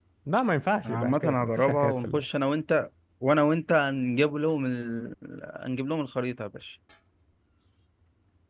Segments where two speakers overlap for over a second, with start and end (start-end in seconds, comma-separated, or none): 0.8-2.2